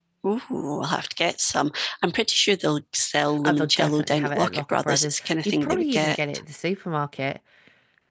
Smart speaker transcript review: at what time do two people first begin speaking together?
3.4 s

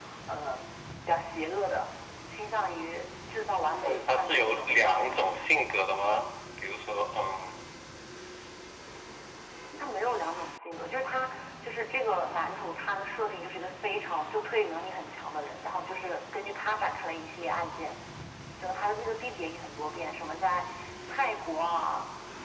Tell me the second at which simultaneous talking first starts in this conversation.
3.8 s

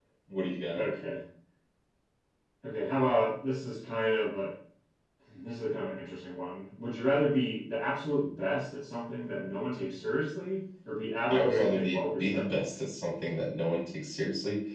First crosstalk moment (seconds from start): 11.3 s

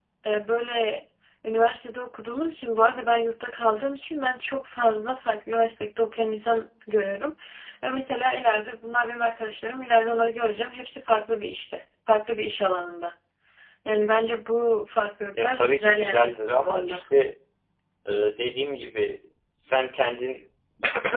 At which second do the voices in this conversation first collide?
15.3 s

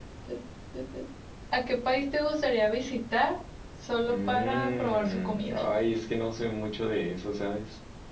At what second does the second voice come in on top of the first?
4.0 s

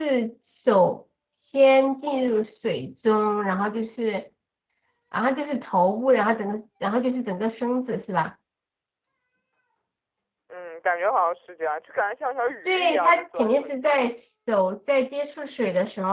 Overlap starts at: 12.7 s

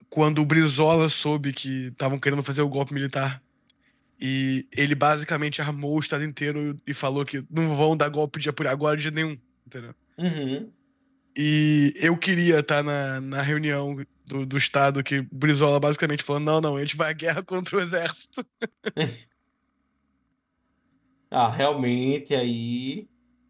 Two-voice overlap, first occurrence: none

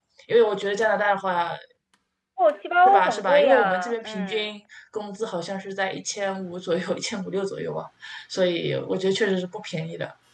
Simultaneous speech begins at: 2.9 s

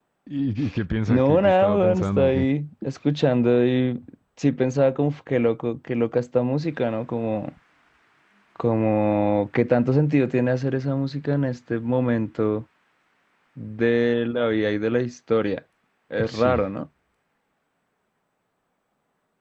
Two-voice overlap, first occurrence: 1.1 s

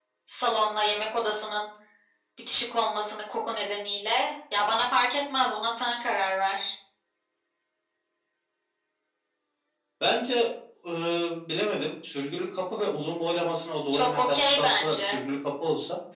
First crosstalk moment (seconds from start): 13.9 s

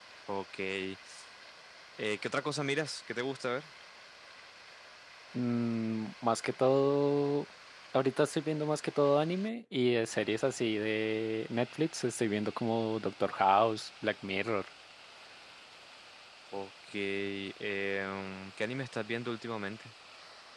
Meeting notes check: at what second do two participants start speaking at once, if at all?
none

